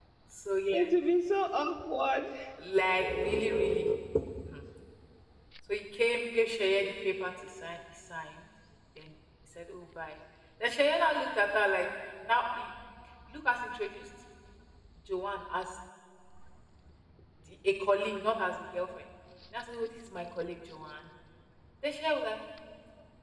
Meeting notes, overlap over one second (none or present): none